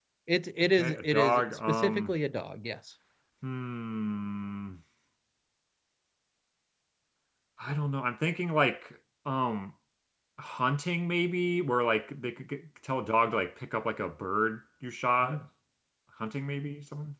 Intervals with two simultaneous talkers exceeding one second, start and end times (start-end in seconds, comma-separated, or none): 0.7-2.1